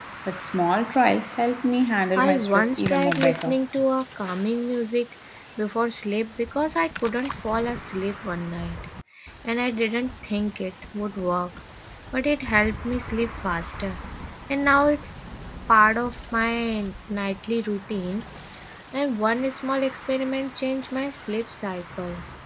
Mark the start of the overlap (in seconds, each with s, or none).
2.2 s